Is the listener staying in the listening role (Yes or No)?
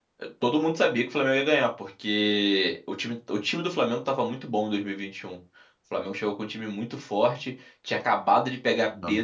Yes